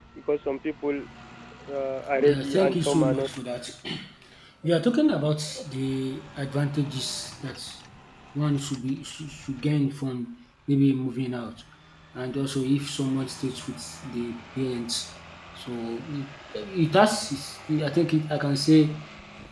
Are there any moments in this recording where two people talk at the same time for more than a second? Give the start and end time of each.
2.2-3.4

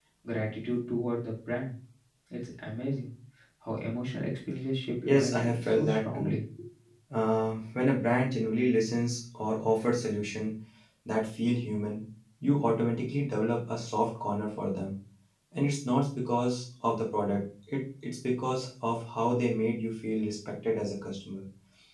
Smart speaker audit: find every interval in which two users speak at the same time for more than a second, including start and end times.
5.0-6.2

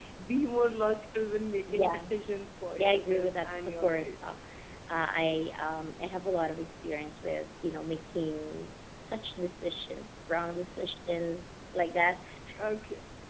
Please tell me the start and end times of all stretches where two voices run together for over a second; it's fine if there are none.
2.8-4.2

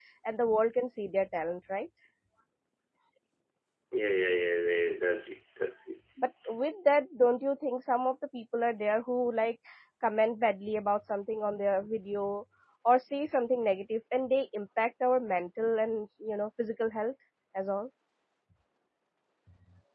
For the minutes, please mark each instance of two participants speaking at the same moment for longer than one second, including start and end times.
none

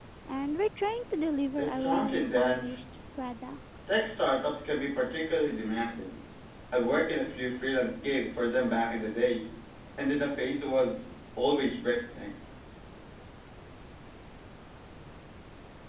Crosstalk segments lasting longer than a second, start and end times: 1.6-2.8

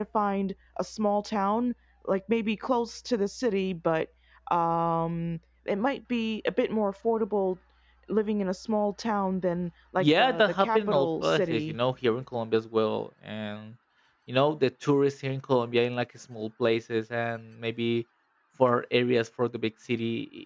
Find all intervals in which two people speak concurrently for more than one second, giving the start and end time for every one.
10.0-11.8

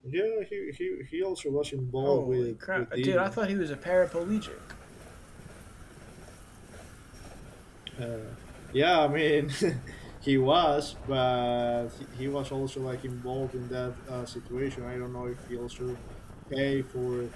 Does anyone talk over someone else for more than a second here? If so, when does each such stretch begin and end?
2.0-3.4

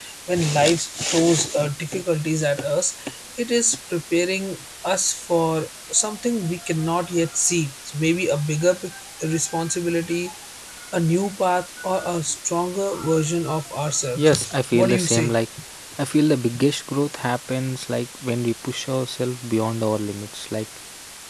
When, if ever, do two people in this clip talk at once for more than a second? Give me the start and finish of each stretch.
14.2-15.3

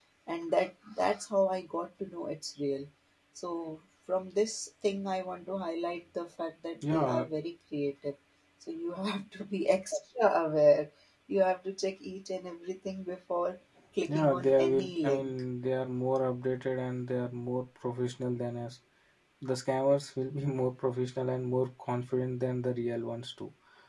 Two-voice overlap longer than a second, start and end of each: 14.1-15.3

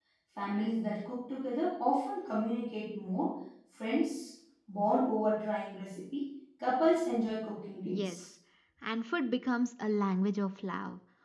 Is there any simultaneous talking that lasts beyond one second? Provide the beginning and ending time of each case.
none

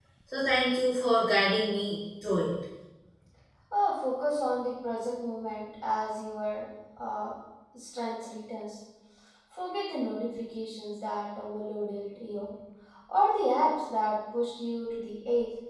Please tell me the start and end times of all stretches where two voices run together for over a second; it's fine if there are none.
none

